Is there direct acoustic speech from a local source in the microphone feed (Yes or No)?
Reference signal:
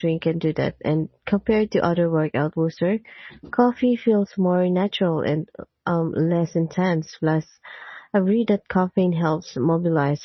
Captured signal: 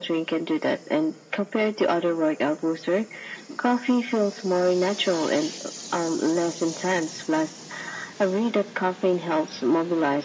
No